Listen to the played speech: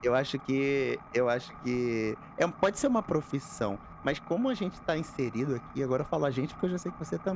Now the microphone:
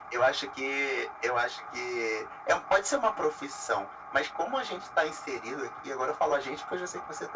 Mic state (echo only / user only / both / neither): echo only